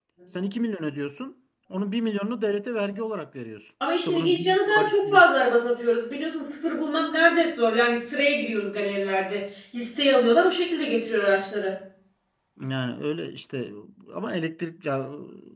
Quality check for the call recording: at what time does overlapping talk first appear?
3.8 s

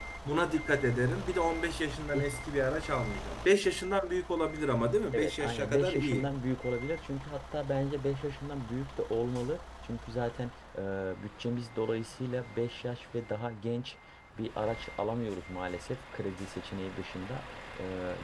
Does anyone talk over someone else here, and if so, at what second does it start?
5.1 s

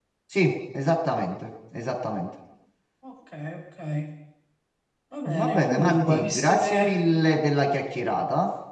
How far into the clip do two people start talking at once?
5.3 s

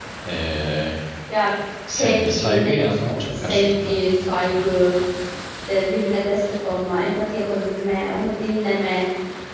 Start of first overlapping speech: 1.9 s

